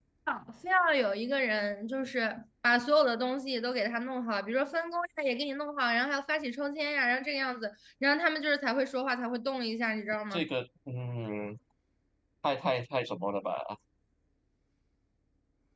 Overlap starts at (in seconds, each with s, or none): none